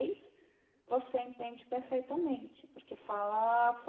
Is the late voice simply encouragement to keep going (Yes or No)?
Yes